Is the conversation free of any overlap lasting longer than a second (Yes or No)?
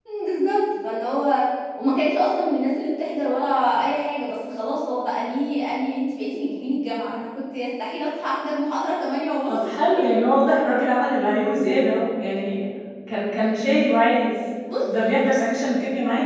Yes